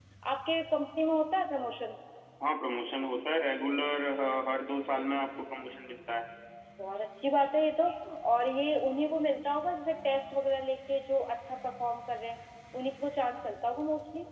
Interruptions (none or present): none